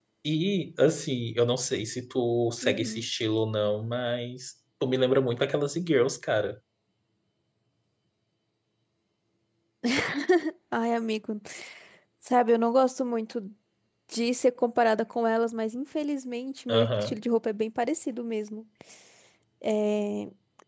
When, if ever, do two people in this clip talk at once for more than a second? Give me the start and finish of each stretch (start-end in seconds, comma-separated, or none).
none